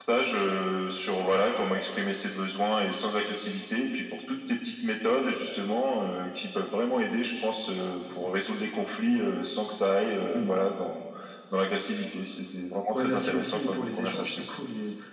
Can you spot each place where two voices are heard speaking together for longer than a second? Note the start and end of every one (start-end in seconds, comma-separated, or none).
12.9-14.4